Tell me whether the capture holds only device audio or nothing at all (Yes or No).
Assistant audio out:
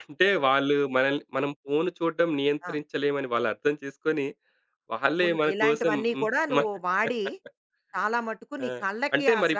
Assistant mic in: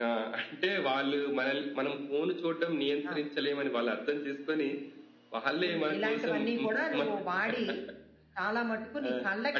Yes